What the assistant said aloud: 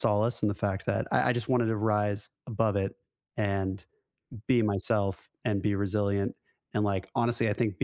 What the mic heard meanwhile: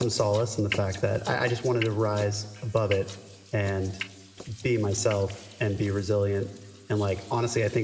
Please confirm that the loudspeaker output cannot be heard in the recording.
No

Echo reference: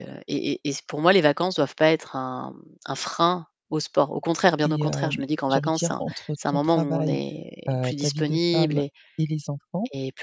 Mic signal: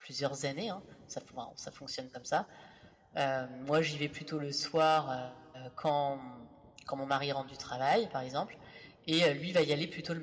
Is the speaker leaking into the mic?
No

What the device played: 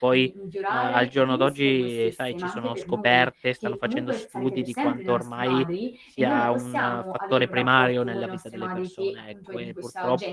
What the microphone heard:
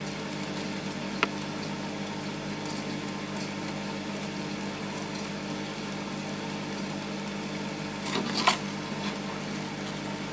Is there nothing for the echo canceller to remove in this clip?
Yes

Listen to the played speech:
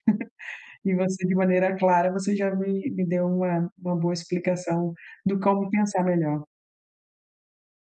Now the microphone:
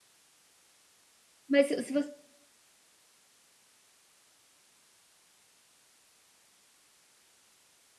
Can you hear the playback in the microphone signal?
No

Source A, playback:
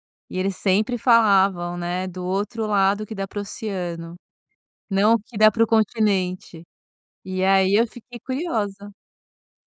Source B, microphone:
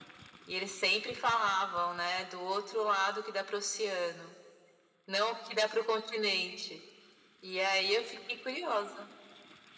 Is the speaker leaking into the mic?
Yes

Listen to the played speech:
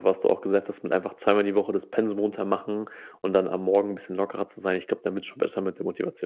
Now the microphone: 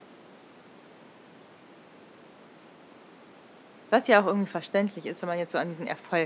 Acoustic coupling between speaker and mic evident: No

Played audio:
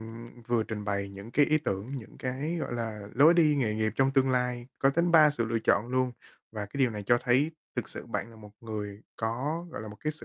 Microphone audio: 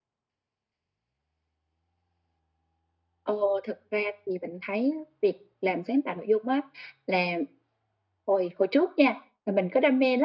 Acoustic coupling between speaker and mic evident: No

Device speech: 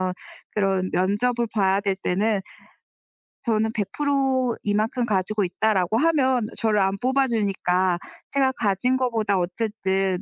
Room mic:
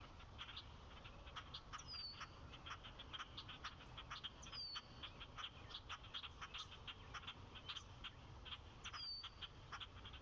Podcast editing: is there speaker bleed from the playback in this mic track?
No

